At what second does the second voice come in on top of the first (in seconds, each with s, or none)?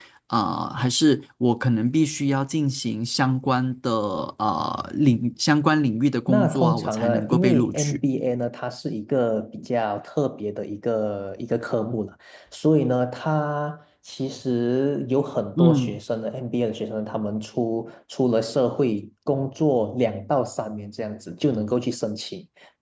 6.3 s